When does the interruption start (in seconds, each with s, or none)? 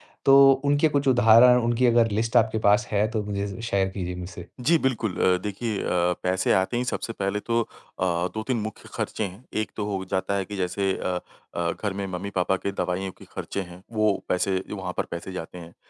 none